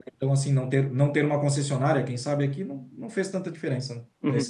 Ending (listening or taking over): taking over